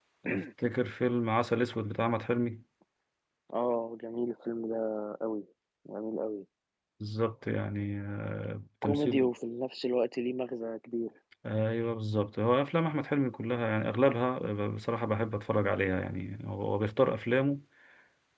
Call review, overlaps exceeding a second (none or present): none